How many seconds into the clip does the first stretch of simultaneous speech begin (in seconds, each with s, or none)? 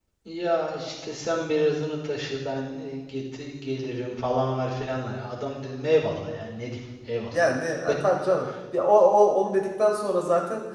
none